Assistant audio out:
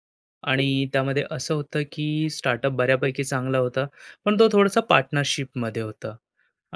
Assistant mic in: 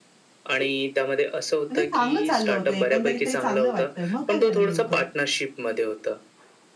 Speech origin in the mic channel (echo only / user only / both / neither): both